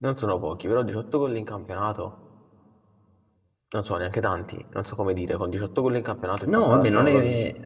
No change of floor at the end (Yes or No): No